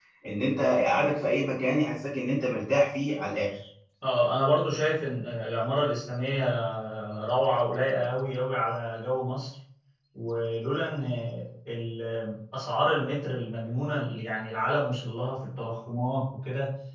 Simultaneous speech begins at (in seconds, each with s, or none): none